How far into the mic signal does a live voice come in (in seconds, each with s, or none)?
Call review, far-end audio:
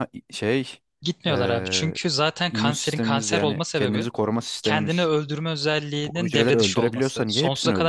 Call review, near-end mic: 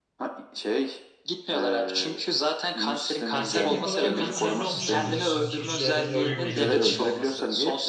3.3 s